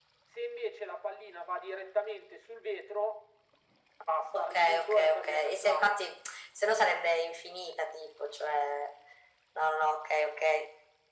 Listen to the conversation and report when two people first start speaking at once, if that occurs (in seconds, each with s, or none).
4.3 s